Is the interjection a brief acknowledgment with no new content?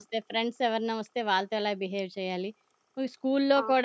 Yes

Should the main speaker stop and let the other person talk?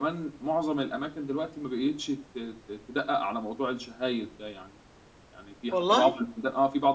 No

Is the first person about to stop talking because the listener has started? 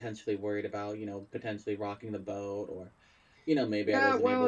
Yes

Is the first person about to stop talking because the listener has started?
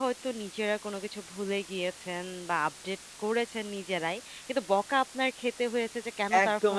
Yes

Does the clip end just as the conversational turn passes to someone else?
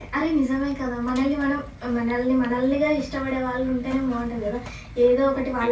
No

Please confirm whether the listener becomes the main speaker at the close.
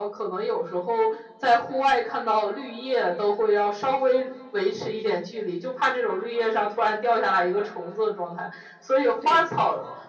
No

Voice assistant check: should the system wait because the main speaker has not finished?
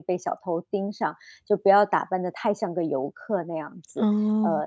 Yes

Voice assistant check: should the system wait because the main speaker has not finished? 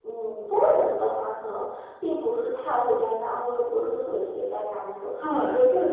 No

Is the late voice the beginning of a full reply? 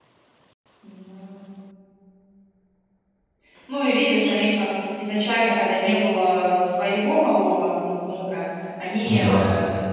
No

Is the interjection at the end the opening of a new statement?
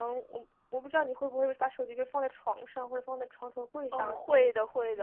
Yes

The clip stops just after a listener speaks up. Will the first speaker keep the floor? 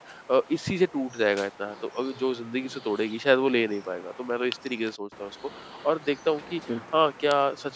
Yes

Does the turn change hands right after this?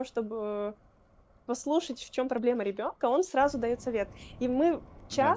No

